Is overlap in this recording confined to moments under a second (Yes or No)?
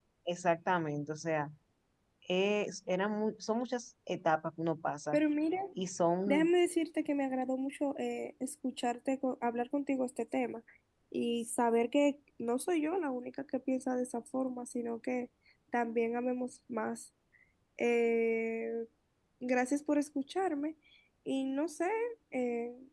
Yes